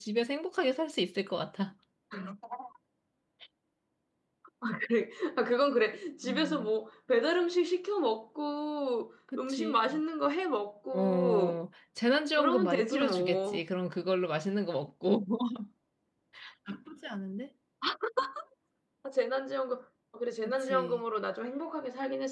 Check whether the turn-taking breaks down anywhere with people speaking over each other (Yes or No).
Yes